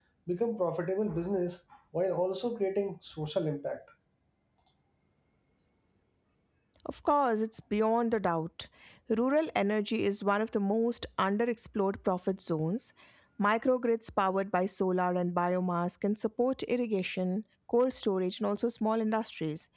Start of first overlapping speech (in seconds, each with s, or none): none